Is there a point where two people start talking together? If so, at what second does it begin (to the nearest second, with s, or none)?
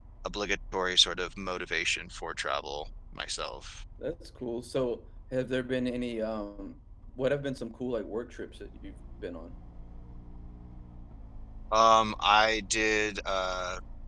none